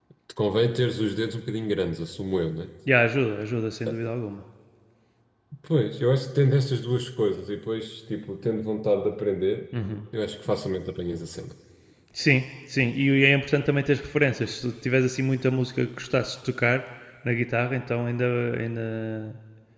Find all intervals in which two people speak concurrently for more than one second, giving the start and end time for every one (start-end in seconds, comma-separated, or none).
none